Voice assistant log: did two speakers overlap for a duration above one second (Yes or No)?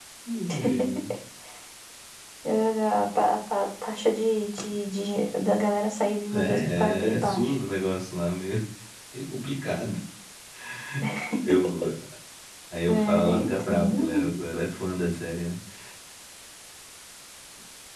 Yes